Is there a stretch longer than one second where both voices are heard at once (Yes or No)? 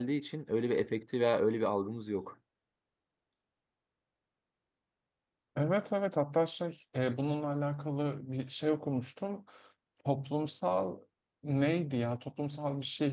No